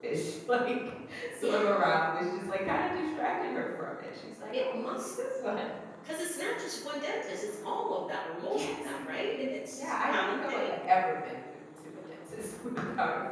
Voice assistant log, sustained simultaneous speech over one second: present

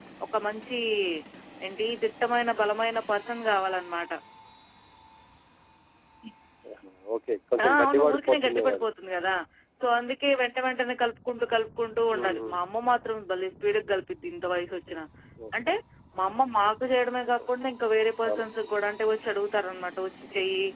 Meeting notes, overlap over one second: present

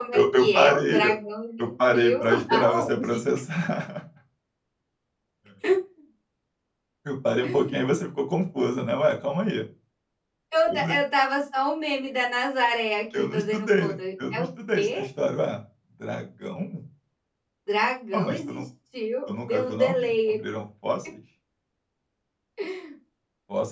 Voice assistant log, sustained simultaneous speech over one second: present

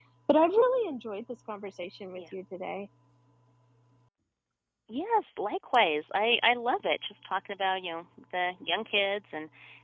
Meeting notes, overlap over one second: none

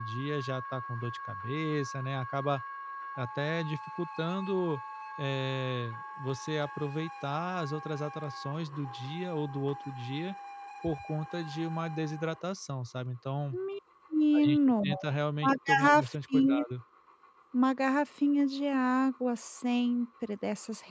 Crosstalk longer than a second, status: present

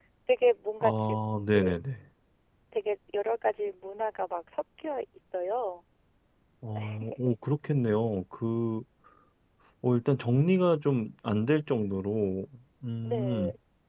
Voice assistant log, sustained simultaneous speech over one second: none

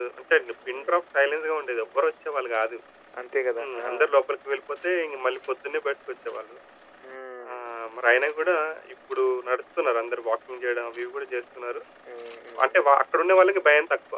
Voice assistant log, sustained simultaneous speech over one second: none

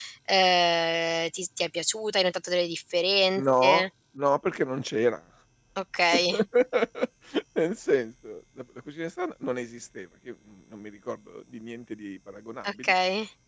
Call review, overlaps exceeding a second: none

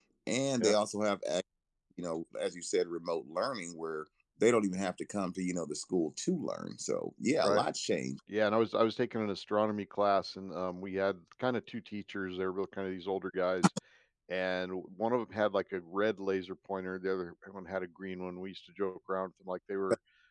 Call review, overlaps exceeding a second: none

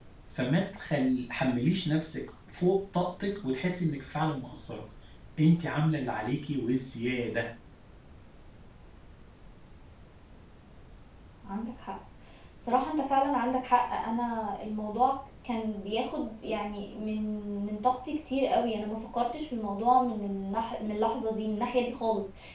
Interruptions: none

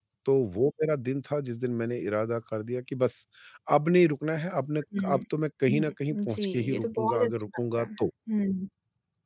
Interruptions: present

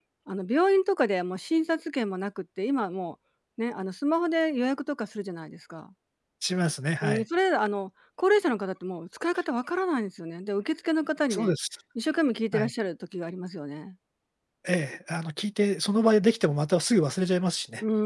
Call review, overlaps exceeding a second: none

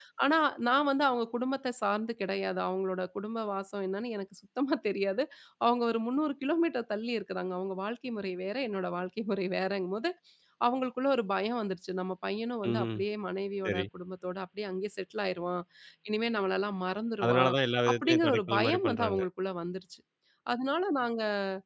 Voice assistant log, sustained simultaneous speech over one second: present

